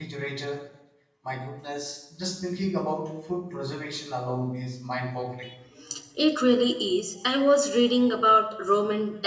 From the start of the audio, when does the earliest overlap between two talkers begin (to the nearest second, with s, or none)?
none